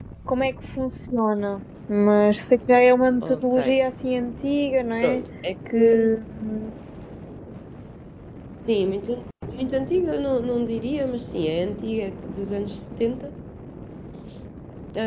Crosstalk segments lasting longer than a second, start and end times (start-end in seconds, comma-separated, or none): none